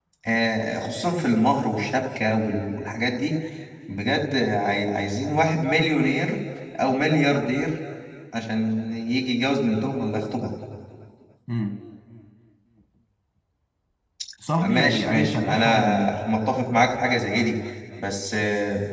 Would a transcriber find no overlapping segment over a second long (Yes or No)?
No